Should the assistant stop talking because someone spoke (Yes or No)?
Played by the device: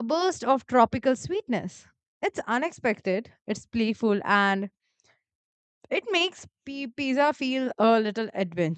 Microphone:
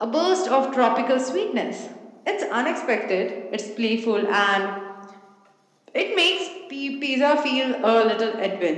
No